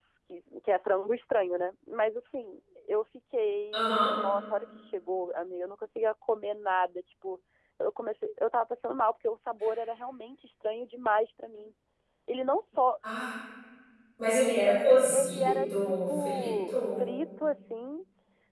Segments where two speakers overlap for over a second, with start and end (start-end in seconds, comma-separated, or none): 15.1-17.0